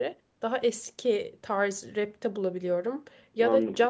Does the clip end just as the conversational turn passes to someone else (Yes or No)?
No